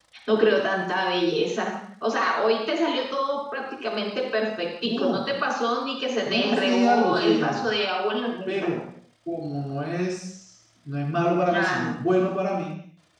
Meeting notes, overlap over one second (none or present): present